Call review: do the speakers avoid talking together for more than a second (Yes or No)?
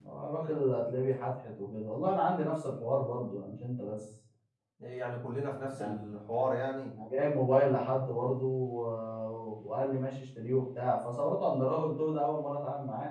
Yes